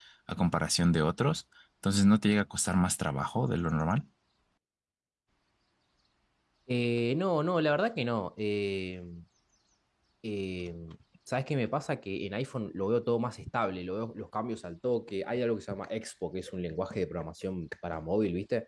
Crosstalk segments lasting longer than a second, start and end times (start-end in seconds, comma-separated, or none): none